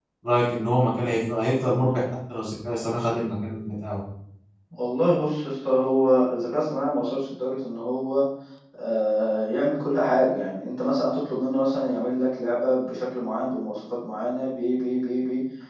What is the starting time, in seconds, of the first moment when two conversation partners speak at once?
none

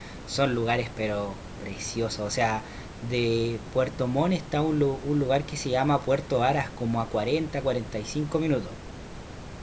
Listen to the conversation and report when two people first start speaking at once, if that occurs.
none

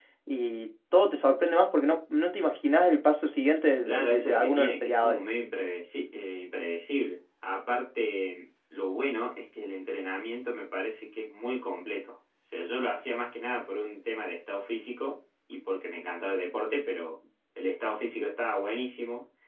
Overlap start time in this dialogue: 3.9 s

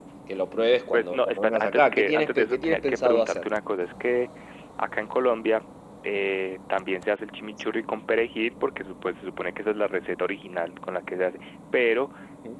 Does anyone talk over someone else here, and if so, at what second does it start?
0.9 s

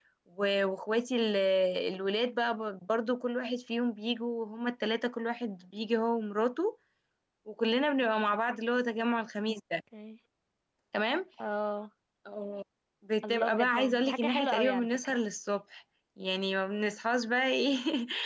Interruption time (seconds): 13.2 s

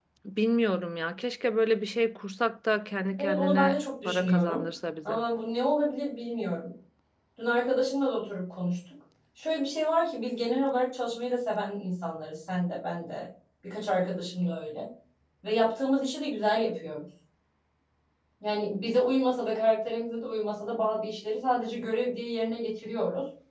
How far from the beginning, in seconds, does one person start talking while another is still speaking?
3.2 s

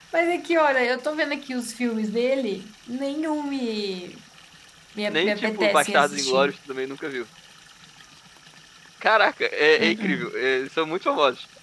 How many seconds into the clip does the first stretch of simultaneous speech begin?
5.1 s

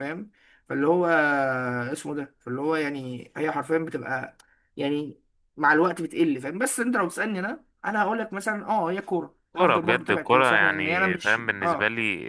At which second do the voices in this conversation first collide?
9.6 s

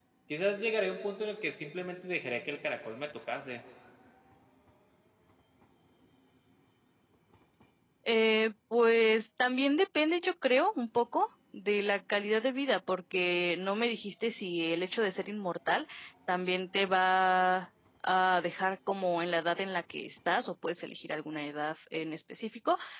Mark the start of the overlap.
none

